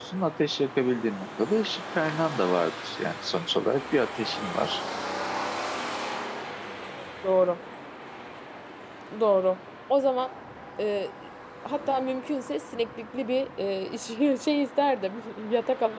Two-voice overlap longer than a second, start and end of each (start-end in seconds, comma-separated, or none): none